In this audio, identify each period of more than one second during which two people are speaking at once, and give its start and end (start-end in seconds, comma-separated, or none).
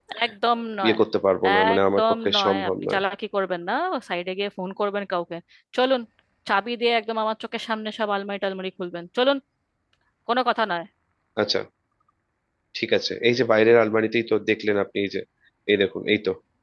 1.7-3.0